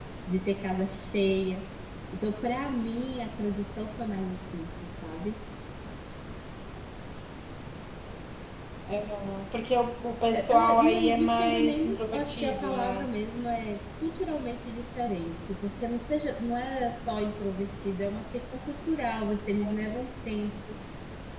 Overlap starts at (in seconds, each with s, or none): 10.3 s